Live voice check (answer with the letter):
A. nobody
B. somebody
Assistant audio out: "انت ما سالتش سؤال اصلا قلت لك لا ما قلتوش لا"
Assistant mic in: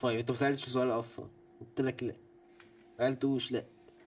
A